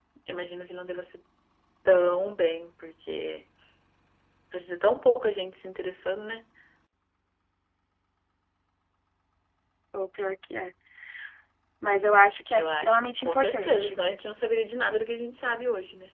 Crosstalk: present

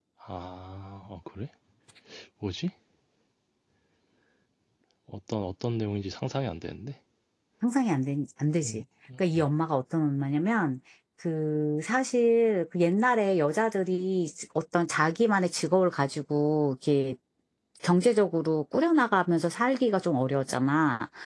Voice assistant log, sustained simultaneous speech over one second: none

